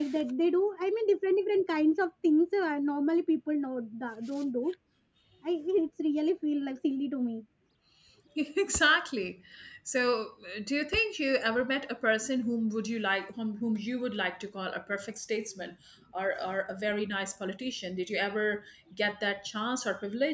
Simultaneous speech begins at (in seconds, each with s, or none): none